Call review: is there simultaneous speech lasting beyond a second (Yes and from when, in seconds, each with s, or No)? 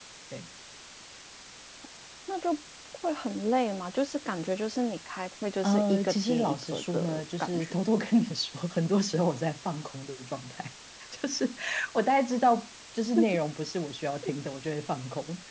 Yes, from 5.6 s